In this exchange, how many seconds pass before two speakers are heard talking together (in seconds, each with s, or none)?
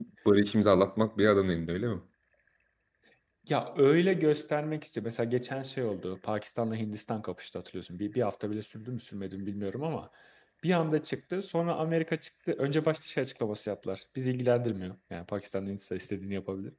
none